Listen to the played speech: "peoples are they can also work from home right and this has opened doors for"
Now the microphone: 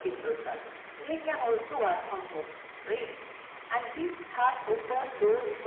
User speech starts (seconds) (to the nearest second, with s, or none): none